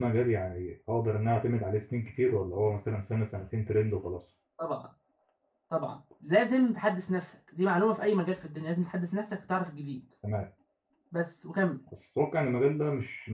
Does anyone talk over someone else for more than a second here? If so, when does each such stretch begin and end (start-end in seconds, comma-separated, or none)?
none